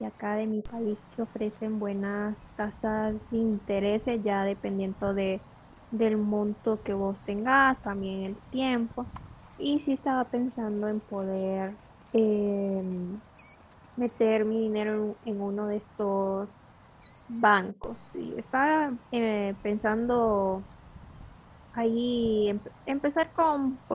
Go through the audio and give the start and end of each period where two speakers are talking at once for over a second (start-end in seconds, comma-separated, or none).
none